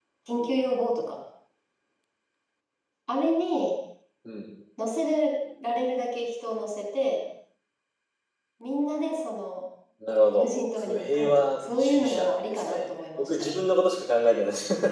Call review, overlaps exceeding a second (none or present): present